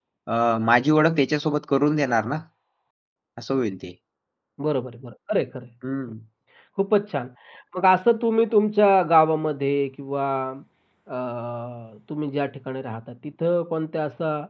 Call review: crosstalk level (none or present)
none